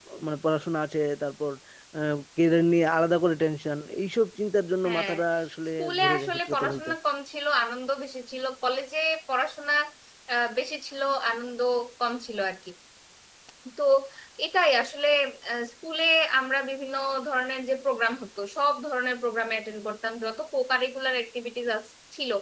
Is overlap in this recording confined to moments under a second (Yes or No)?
No